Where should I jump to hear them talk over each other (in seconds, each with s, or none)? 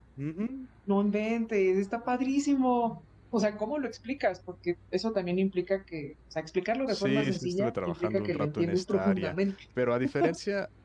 6.9 s